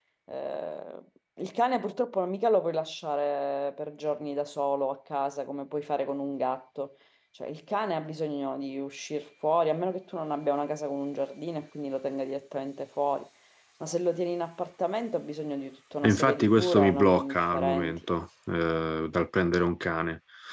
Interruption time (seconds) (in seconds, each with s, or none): 16.0 s